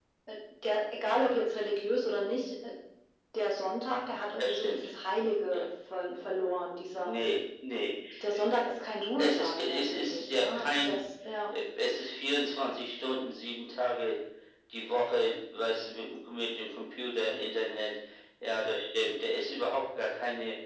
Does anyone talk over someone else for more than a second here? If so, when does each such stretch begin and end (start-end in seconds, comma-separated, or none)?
9.2-11.0